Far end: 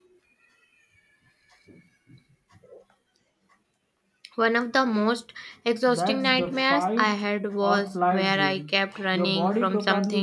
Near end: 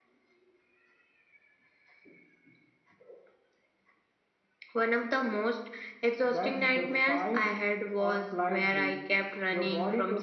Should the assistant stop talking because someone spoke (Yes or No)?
No